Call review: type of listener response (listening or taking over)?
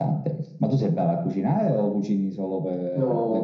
taking over